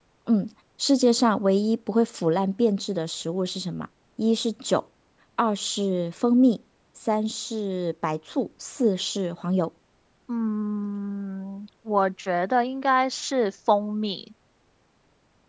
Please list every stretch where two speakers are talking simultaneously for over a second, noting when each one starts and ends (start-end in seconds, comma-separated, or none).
none